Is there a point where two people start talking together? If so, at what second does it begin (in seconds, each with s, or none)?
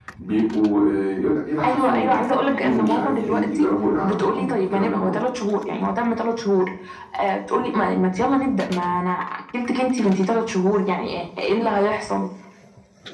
1.6 s